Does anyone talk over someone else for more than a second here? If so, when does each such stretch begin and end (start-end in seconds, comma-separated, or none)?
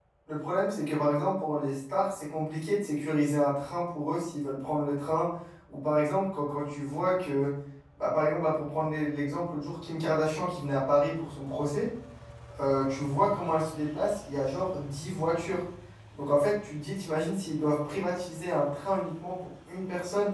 none